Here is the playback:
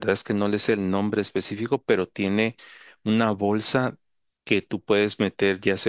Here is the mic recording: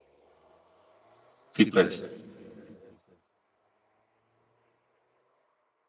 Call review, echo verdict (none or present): none